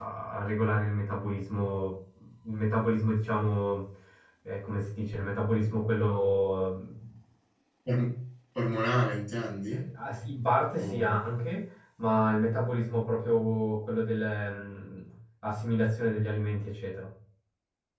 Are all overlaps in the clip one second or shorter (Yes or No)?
Yes